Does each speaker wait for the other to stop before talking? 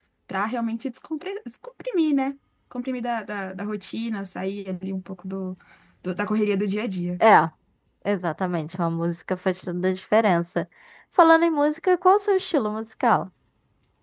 Yes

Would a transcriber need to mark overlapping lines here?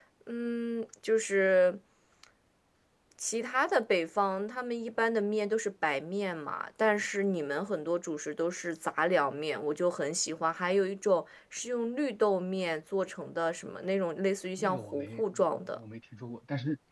Yes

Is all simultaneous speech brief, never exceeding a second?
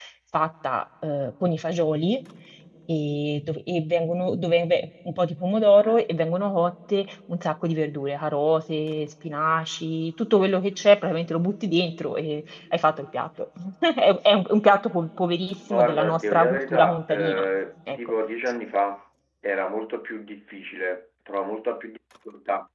No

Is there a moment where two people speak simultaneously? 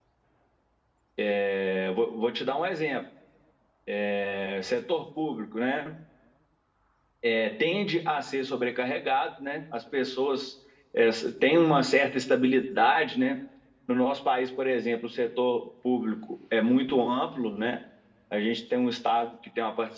No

